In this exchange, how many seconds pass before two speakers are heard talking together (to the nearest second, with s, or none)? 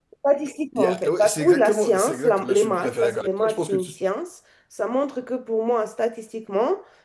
1 s